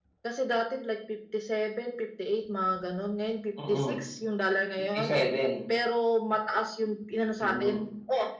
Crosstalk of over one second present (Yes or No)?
No